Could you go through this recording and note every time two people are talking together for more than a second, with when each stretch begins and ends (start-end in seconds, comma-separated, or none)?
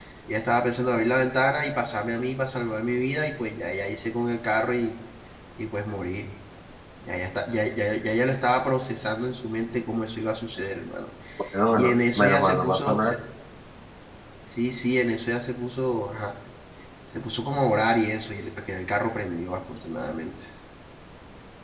11.8-13.2